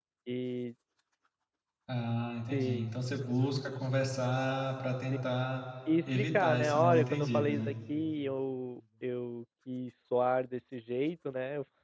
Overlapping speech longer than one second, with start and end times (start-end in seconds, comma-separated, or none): 6.1-7.7